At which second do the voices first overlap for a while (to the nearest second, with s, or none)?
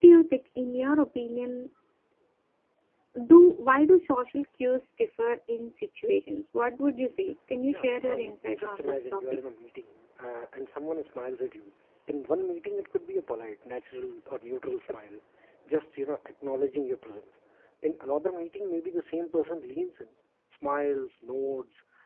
8 s